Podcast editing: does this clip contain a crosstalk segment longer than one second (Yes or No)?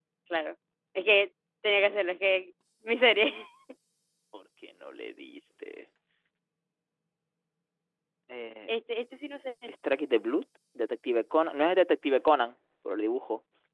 No